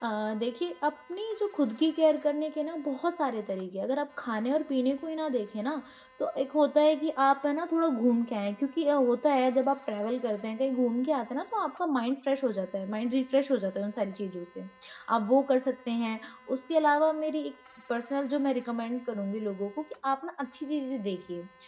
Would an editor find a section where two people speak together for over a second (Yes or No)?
No